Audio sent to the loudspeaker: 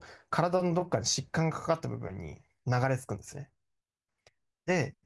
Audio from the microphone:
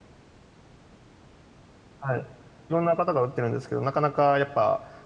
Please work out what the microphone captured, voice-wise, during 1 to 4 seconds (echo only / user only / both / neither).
user only